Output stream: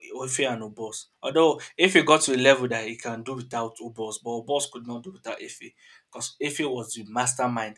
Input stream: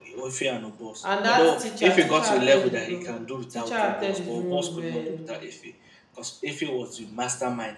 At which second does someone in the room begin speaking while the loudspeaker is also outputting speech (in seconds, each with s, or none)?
1.0 s